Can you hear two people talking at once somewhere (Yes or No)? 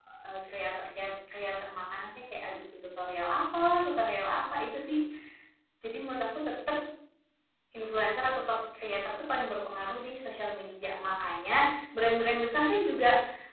No